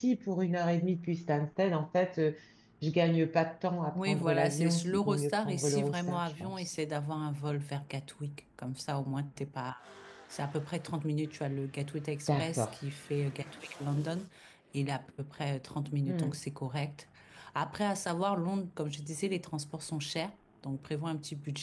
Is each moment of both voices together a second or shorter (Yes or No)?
No